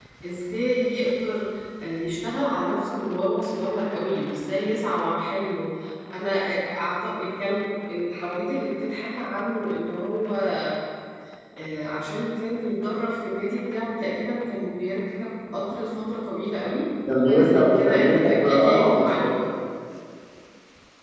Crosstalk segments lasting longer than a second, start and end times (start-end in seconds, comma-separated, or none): 17.3-19.3